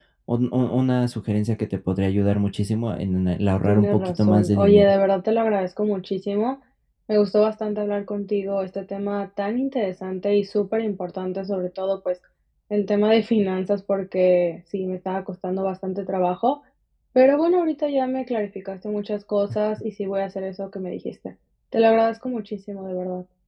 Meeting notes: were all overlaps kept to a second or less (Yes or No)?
No